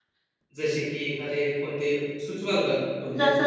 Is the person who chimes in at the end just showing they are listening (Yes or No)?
No